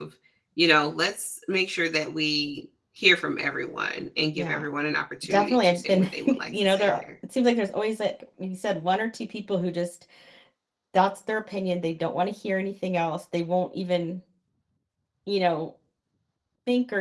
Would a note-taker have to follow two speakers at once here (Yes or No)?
Yes